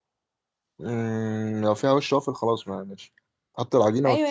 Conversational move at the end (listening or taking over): taking over